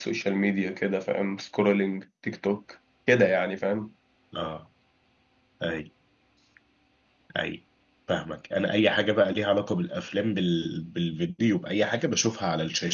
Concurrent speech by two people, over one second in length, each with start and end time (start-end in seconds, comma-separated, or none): none